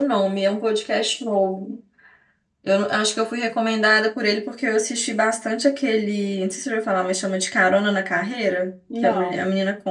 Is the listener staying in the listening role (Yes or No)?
Yes